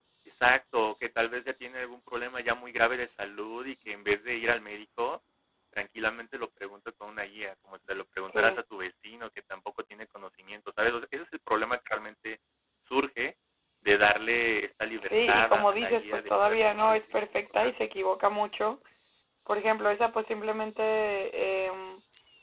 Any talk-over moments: Yes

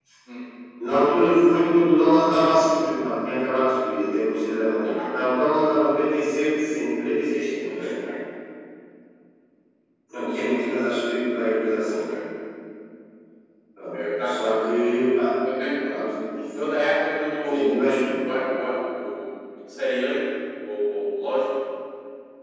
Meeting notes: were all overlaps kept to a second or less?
Yes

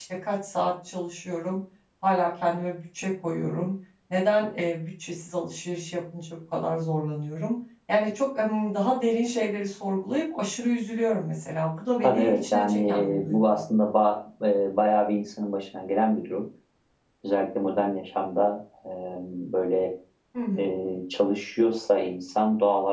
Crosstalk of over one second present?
Yes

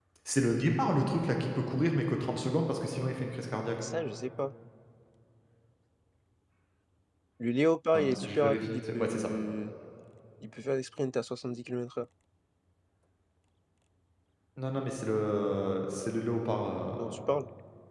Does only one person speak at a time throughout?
No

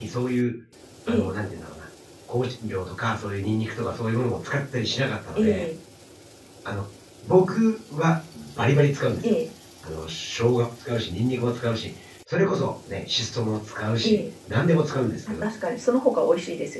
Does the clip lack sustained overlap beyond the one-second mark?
Yes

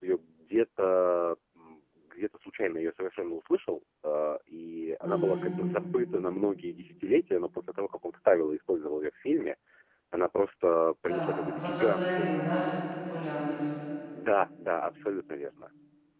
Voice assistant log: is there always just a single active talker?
No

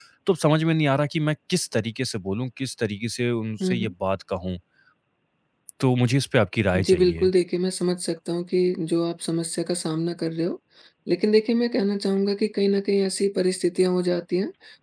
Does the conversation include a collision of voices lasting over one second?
No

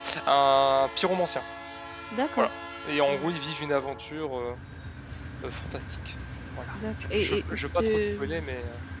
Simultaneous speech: Yes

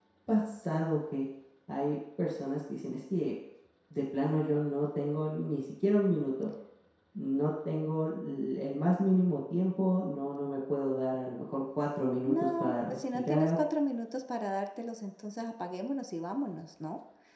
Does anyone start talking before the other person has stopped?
Yes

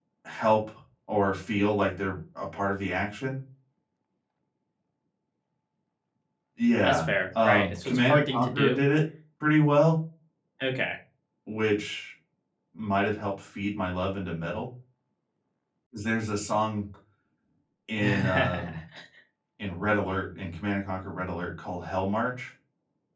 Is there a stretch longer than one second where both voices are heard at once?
Yes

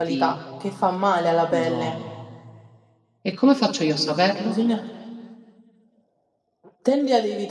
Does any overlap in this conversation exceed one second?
No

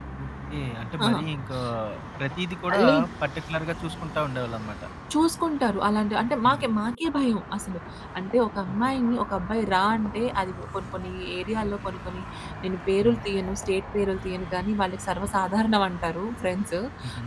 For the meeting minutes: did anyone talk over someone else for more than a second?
No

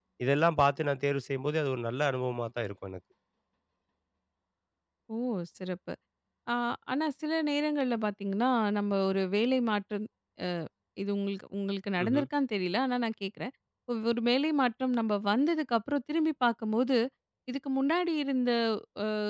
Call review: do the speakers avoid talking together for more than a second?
Yes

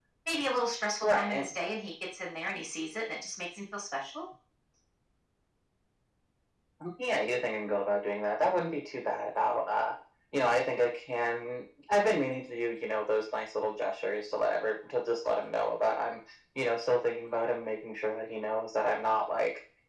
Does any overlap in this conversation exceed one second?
No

